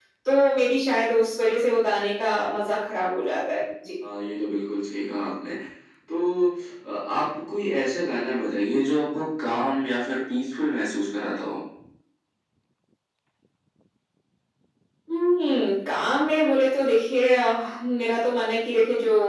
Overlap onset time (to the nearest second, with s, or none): none